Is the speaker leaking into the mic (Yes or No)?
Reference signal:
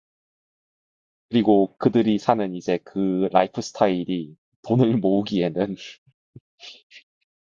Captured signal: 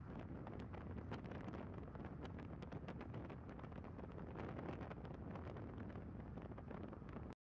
No